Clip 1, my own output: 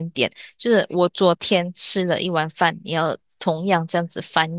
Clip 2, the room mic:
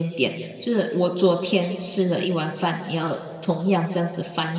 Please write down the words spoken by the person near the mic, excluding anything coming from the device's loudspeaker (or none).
none